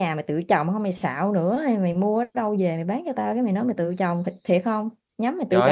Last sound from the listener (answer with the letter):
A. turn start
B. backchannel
A